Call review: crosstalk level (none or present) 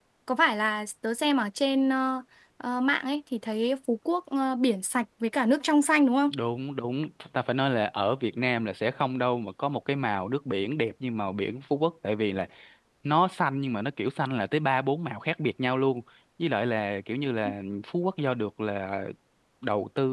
none